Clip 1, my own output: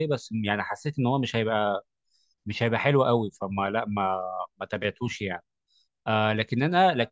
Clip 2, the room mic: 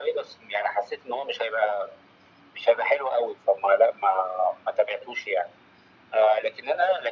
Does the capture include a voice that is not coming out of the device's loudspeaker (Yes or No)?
No